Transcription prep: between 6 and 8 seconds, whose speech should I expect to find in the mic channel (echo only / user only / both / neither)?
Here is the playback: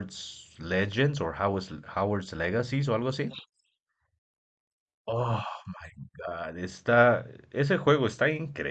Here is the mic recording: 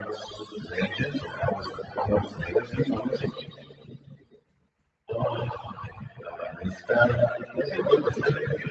echo only